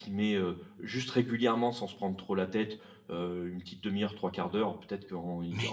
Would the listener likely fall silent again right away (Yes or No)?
Yes